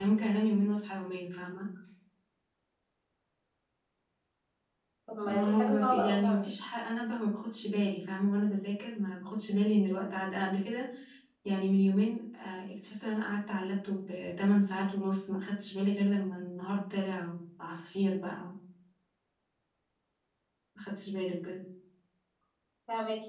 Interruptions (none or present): present